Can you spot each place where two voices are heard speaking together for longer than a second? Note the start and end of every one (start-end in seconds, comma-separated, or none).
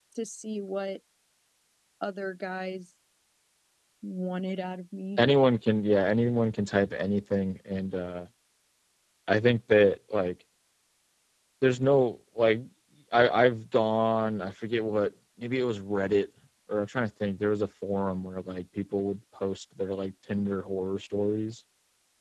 none